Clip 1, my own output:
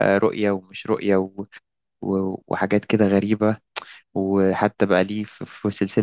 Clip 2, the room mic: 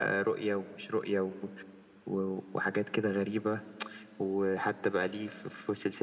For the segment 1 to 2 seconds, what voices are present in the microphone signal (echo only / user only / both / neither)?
echo only